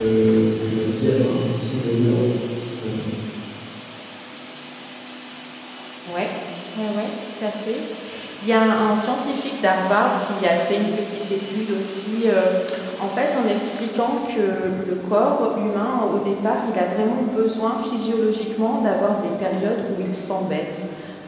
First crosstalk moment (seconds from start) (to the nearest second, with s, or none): none